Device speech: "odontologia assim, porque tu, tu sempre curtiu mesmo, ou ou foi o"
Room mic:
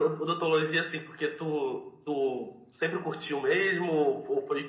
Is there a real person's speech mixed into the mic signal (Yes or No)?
No